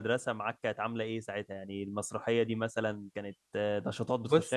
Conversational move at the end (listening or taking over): taking over